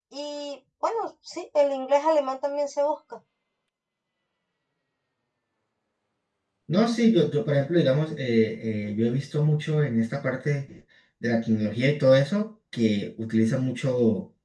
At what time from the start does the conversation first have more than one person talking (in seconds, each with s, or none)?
none